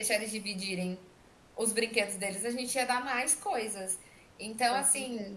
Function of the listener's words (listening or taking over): listening